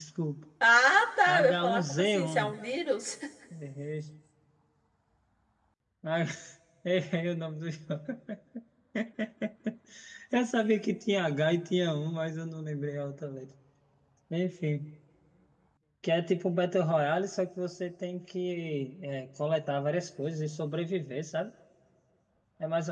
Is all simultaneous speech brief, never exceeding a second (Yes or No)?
No